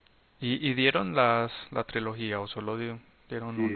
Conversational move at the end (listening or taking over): taking over